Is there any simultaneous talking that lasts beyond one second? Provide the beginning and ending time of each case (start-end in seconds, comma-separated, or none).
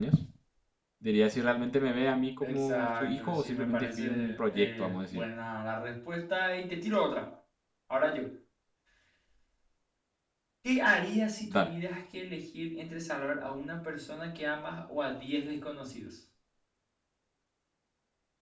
2.4-5.2